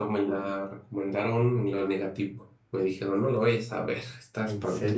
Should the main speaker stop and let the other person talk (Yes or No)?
Yes